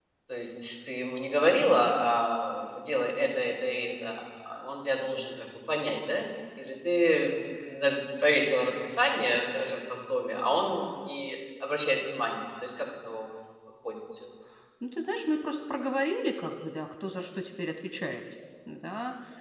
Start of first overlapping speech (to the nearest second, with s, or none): none